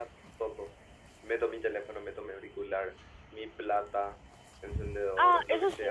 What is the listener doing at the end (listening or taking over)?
taking over